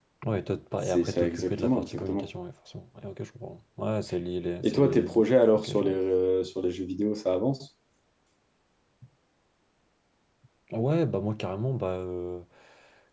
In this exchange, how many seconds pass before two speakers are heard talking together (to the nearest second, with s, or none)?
1 s